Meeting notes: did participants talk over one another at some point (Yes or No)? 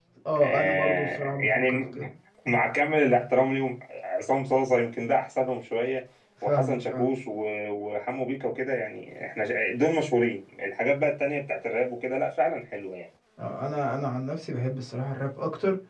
Yes